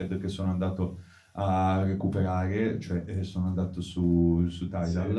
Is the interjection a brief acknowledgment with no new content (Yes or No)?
Yes